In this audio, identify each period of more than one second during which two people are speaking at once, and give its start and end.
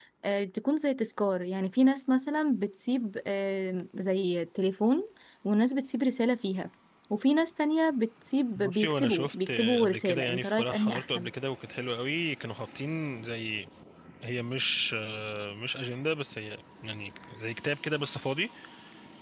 8.6-11.3

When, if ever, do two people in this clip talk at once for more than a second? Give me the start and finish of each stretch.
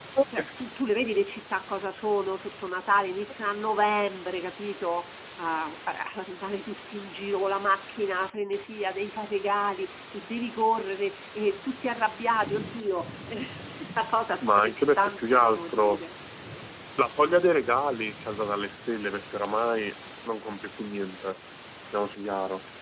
14.4-16.0

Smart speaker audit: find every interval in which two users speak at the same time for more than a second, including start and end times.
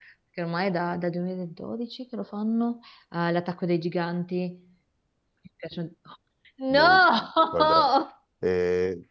none

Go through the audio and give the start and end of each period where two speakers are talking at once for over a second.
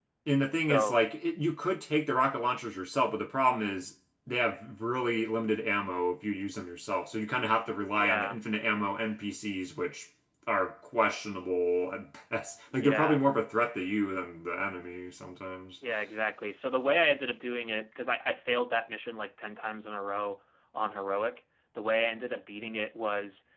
none

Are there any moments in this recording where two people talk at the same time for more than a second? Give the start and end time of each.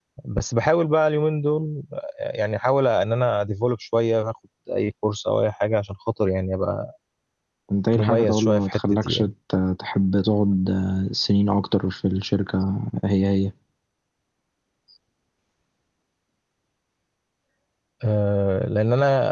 8.0-9.3

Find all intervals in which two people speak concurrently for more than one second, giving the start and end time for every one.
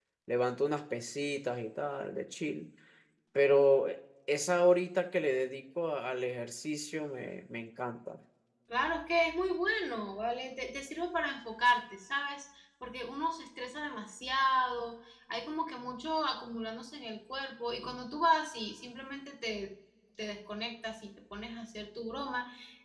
none

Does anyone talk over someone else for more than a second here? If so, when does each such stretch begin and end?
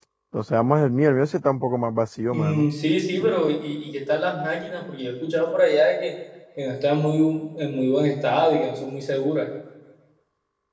none

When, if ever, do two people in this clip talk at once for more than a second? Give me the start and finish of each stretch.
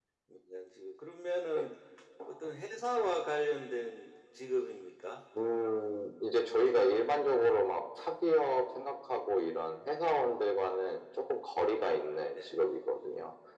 none

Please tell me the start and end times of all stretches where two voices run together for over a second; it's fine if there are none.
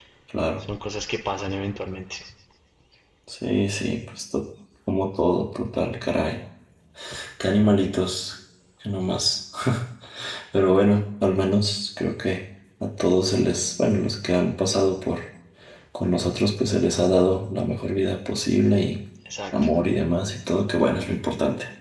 none

